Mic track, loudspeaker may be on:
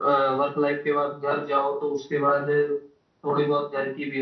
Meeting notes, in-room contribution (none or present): none